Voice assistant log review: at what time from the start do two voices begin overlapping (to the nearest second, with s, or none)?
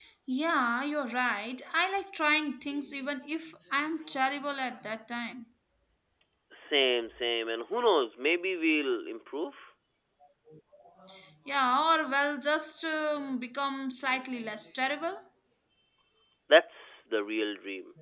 none